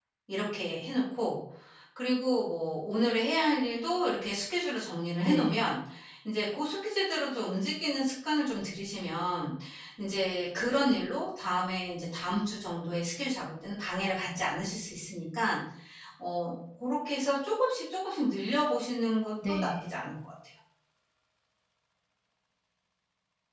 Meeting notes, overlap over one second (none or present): none